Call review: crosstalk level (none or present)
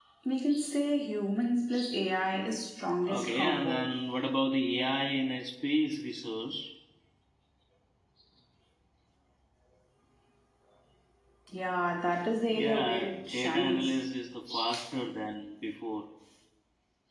present